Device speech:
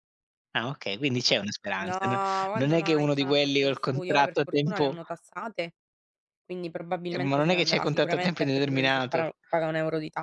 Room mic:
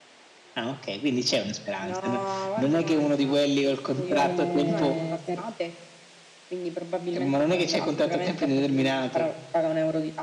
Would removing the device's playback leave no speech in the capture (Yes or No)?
No